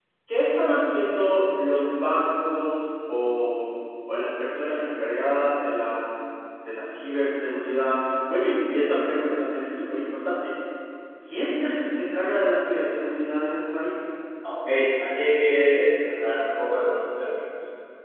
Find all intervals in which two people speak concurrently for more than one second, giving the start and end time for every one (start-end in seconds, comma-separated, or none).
none